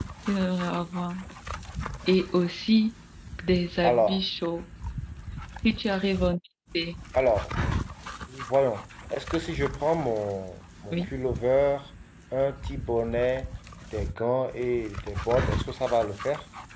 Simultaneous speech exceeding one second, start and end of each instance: none

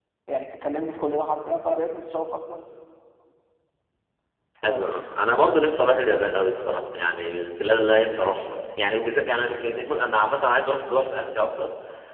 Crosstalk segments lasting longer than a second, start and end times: none

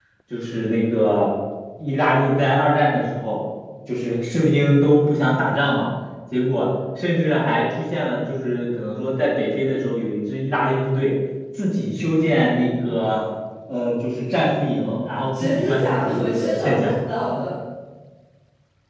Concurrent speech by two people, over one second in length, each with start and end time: 15.4-16.9

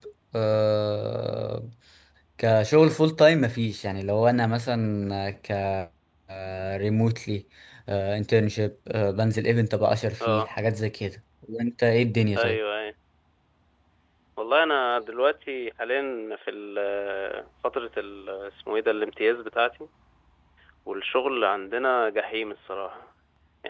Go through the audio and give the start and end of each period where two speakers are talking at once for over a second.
none

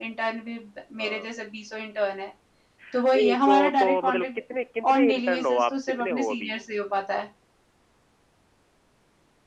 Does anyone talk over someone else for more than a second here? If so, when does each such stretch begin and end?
3.1-4.4, 4.9-6.6

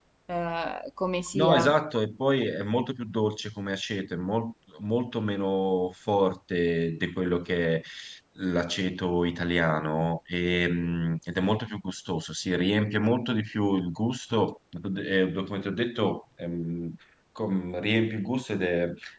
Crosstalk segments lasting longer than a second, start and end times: none

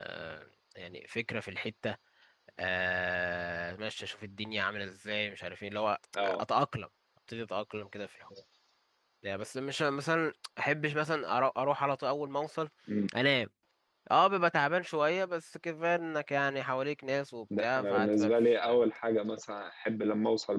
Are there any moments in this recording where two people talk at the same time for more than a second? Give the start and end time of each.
17.6-18.9

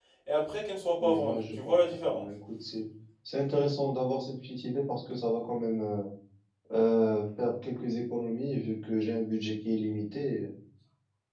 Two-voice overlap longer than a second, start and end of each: 1.0-2.3

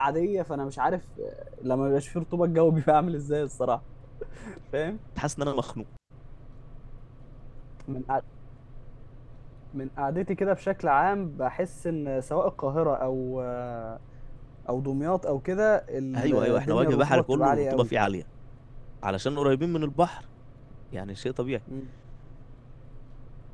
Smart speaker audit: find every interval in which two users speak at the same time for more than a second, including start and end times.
16.1-17.9

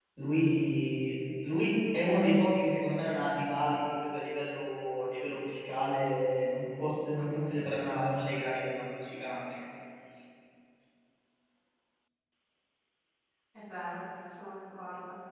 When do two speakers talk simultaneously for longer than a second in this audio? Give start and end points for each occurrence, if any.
none

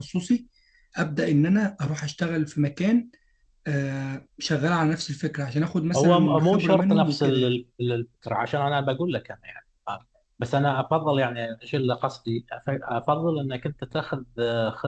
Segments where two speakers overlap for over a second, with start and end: 5.9-7.4

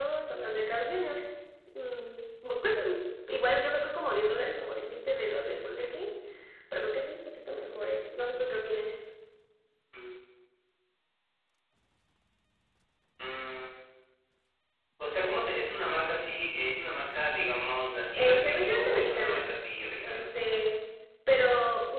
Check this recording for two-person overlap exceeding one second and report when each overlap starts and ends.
18.2-19.5

